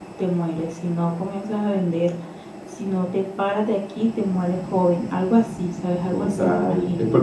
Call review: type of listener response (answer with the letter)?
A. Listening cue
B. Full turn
B